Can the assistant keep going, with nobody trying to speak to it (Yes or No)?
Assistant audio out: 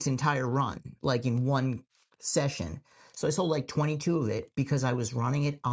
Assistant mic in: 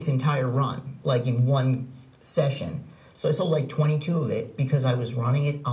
Yes